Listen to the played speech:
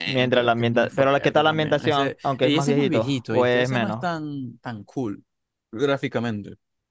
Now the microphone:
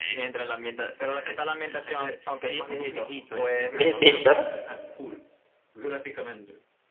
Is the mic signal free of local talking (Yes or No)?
No